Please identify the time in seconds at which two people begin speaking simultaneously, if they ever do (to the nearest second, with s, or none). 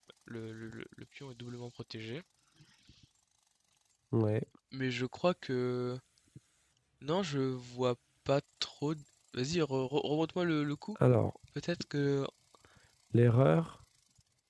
none